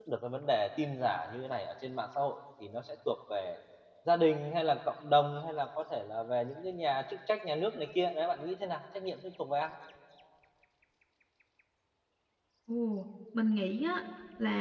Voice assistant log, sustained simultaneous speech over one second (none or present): none